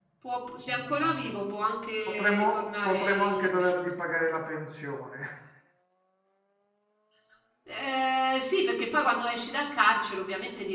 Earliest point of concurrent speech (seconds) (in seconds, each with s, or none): 2.1 s